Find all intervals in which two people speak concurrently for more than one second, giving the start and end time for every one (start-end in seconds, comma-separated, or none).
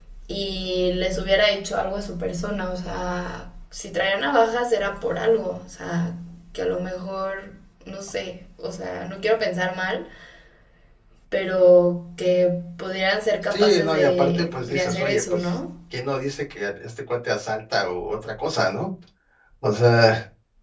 13.5-15.5